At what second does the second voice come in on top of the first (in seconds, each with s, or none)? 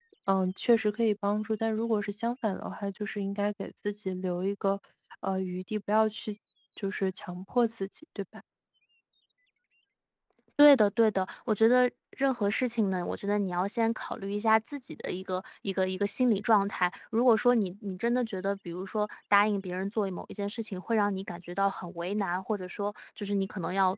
none